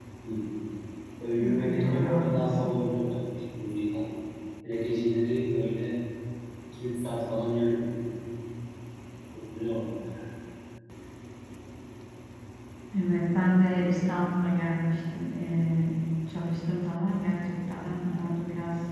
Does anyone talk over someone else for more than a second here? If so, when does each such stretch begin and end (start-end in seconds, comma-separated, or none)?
1.4-2.7